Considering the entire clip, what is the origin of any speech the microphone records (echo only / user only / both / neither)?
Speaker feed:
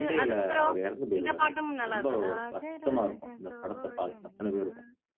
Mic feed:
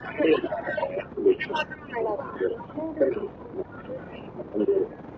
echo only